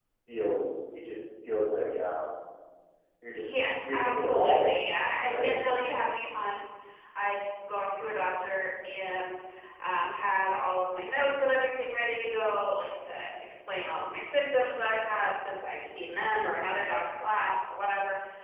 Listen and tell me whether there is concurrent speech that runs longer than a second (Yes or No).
Yes